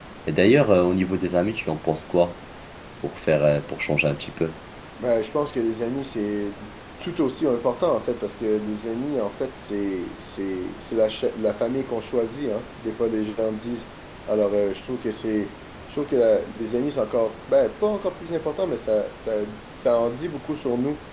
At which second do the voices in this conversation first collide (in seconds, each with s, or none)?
none